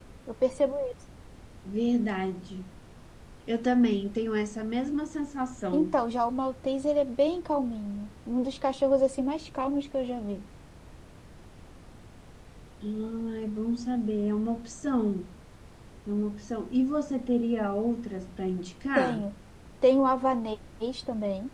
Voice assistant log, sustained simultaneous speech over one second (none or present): none